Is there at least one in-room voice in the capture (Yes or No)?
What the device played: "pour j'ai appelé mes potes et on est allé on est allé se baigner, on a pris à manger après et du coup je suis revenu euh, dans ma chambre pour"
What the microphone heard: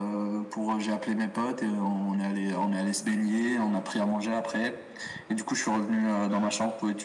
No